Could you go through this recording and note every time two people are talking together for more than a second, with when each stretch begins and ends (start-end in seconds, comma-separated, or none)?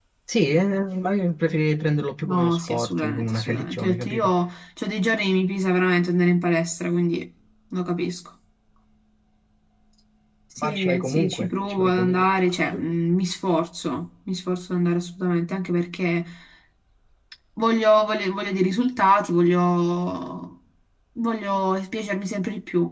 2.2-4.3, 10.6-12.3